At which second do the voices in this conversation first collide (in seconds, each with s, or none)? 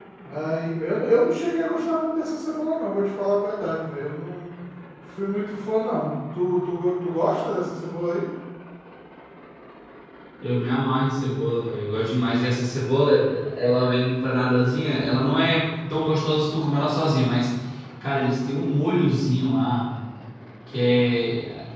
none